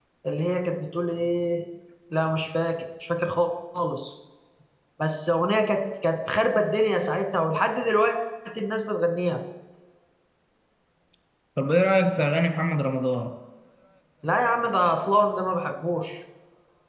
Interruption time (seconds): none

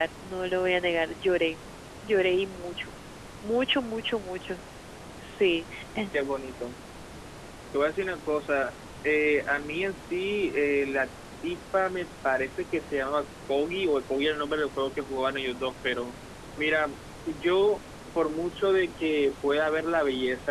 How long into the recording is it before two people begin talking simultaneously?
none

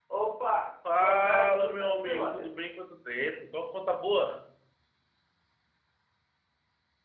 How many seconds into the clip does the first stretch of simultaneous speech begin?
1.0 s

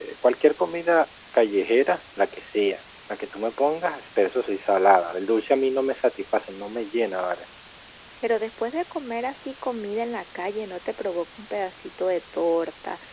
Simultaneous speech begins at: none

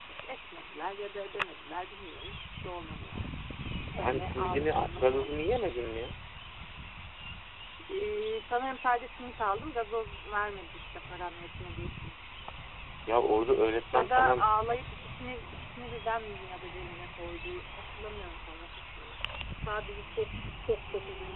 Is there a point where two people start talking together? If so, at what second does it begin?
4.0 s

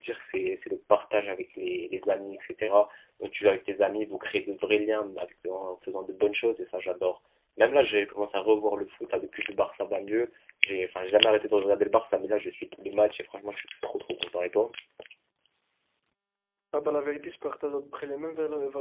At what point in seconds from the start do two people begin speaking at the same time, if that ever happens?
none

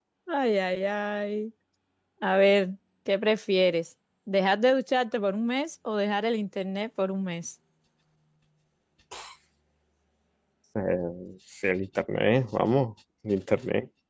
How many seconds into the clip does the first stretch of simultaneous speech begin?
none

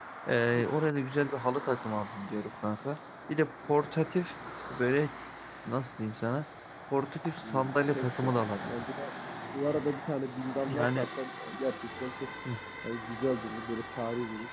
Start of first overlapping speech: 7.4 s

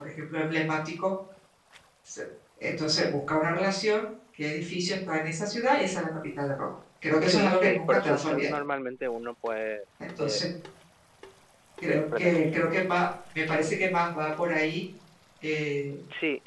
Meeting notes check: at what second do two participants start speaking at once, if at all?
7.2 s

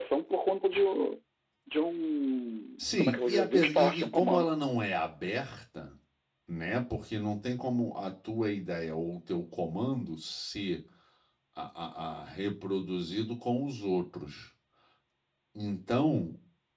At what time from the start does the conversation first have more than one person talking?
2.8 s

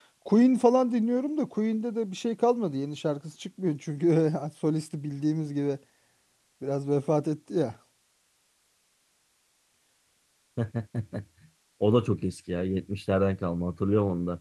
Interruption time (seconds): none

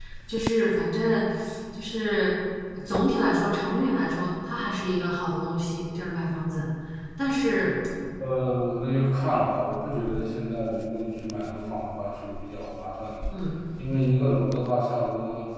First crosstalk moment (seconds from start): none

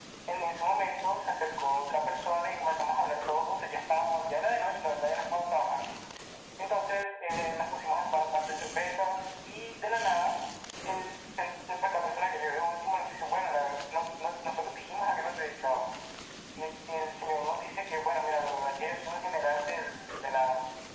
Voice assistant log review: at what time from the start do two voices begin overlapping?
none

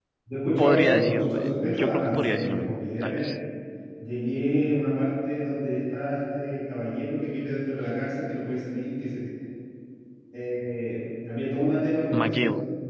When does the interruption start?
0.6 s

